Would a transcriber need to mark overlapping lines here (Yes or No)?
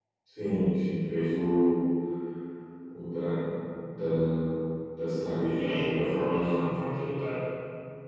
Yes